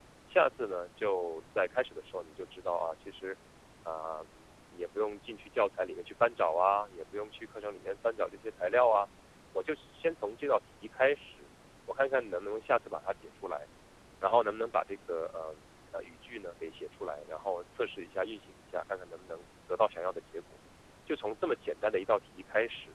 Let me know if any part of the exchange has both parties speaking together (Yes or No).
No